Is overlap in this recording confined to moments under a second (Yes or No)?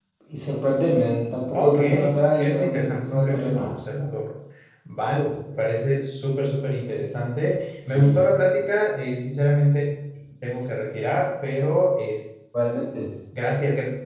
No